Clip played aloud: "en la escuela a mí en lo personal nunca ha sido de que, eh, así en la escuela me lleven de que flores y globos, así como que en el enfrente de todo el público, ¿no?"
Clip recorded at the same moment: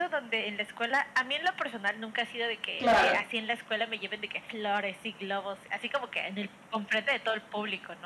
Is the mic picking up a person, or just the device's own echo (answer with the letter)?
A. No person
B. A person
B